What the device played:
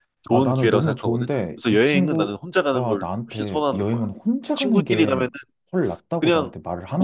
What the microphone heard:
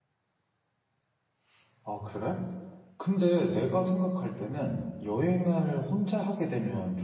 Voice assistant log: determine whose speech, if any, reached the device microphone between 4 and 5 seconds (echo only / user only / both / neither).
user only